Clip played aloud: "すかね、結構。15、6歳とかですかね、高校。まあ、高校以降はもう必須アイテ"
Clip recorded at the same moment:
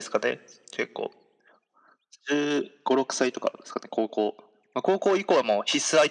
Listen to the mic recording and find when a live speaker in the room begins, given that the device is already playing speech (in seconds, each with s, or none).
none